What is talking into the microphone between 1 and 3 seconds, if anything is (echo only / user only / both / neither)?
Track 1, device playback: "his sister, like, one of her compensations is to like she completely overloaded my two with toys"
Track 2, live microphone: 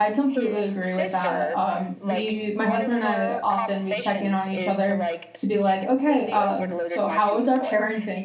both